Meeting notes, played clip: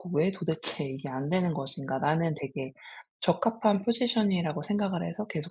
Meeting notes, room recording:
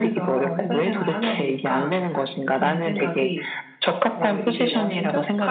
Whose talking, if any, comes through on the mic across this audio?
both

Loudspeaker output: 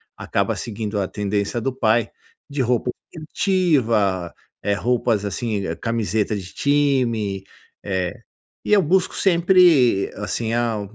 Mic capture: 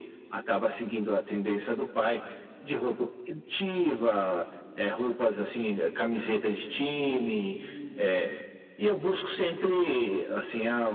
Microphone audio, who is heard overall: echo only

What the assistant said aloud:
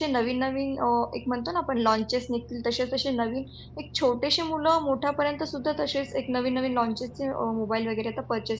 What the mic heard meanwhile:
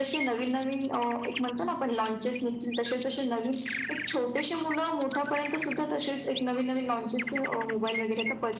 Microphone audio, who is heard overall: echo only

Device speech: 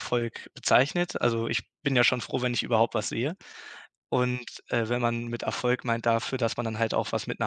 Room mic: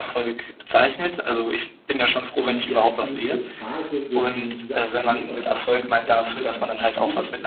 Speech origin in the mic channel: both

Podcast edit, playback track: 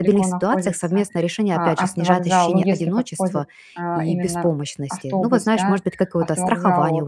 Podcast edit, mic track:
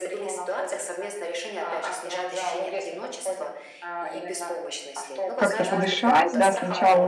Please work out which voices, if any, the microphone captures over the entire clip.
both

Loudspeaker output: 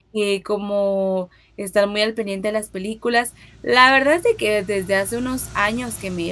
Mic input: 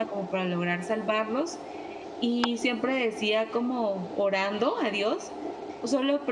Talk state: user only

